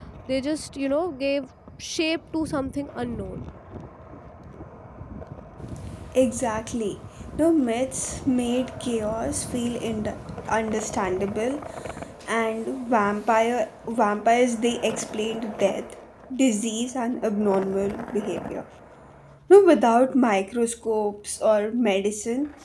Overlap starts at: none

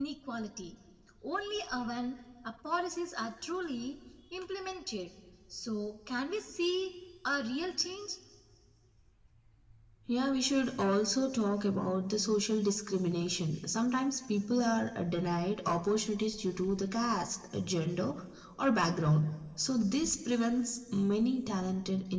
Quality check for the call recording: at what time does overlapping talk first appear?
none

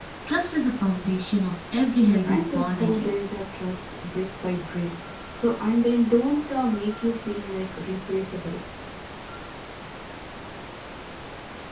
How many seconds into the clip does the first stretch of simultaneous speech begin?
2.0 s

